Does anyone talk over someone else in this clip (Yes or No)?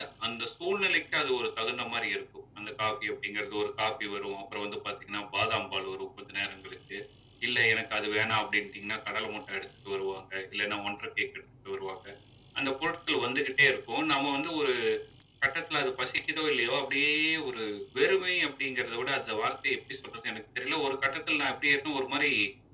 No